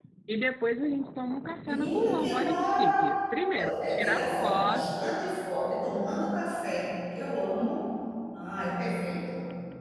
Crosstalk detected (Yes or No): Yes